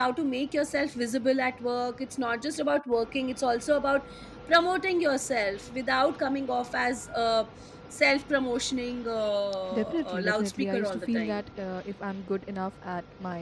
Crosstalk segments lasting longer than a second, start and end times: 9.7-11.4

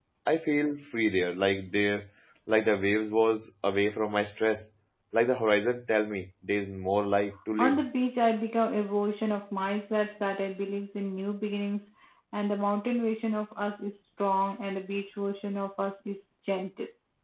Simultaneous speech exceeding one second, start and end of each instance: none

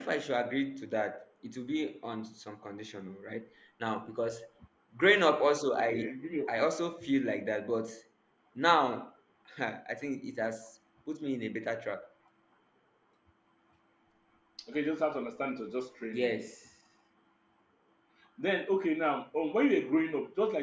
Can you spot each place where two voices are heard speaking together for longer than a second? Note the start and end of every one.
none

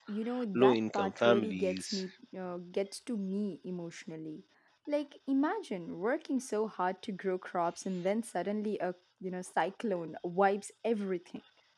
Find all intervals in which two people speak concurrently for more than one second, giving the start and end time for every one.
0.5-2.0

